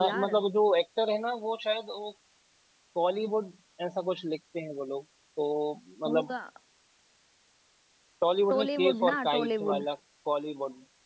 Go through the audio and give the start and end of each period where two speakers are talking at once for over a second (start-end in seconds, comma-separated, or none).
8.5-9.8